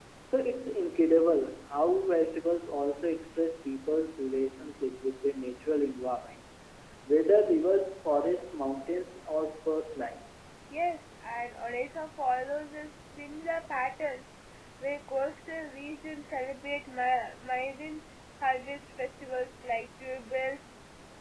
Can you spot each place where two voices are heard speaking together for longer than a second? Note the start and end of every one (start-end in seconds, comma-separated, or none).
none